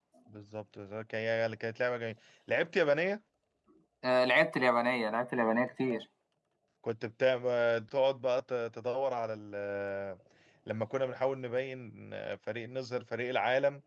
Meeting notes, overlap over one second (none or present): none